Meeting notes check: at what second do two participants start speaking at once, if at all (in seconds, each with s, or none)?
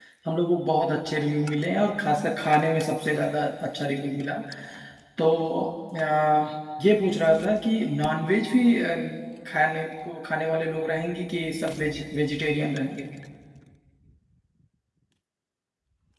none